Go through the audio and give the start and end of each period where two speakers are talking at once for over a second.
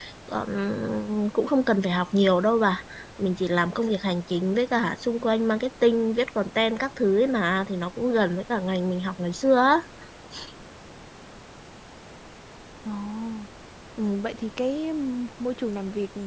none

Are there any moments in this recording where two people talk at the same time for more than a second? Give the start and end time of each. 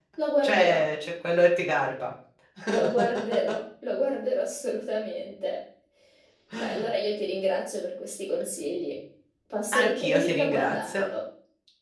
9.8-11.0

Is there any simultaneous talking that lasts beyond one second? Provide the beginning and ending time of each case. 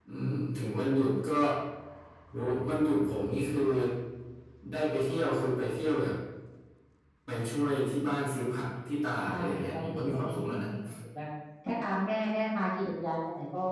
9.3-10.7

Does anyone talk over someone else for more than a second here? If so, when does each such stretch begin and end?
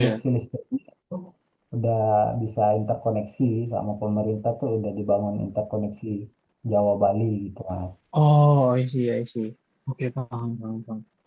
none

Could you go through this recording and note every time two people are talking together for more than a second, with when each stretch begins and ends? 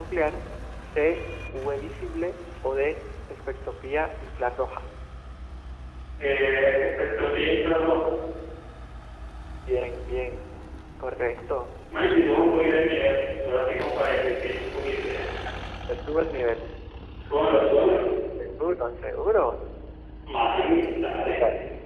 none

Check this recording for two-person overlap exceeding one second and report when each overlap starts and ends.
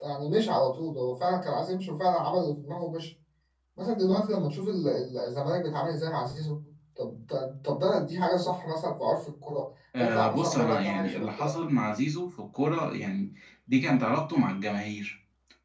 10.0-11.5

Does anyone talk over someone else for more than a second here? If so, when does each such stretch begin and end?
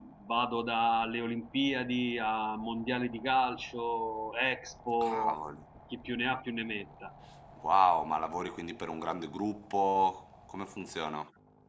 none

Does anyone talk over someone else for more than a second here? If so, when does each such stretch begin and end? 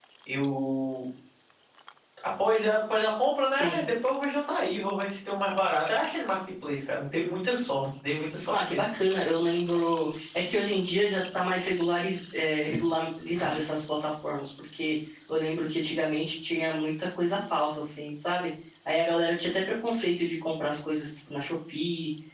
none

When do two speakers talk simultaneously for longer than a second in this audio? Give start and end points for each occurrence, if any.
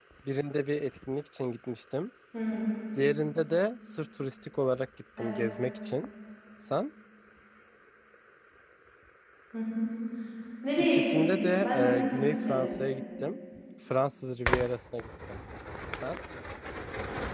10.8-12.7

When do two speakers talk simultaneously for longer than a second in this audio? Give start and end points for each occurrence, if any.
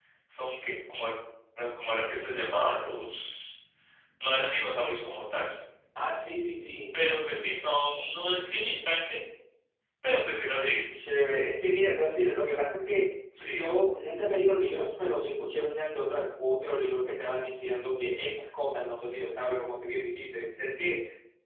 none

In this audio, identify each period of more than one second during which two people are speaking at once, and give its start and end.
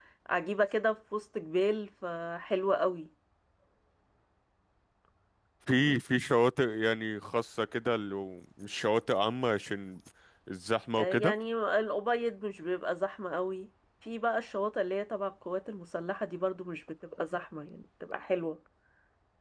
none

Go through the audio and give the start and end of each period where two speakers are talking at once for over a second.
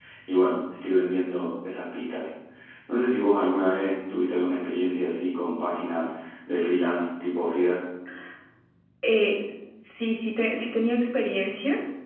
none

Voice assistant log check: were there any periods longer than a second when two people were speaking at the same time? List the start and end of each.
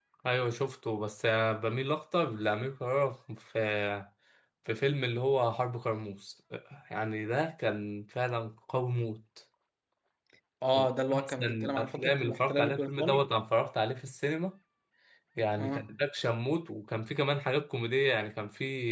10.7-13.3

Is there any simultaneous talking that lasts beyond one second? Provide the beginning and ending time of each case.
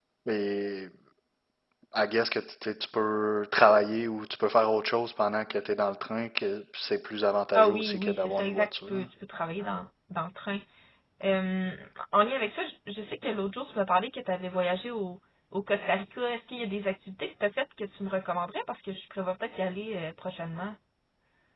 7.5-8.9

